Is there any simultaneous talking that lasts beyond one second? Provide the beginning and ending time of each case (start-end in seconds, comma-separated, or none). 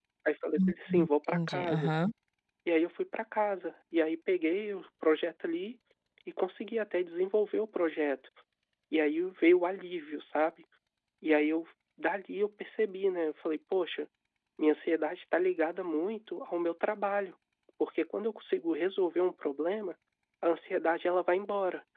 0.6-1.9